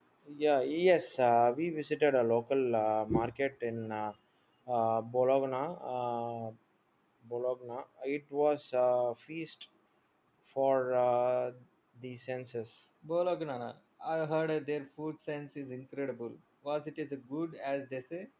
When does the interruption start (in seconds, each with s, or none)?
none